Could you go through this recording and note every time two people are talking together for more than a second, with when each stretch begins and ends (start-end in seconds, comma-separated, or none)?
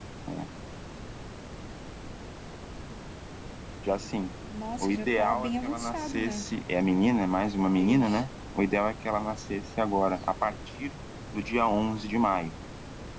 4.8-6.5